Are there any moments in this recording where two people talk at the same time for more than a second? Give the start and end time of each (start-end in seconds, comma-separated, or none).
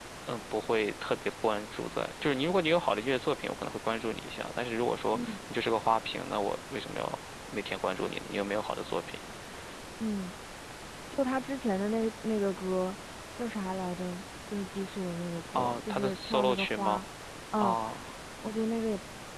15.6-17.0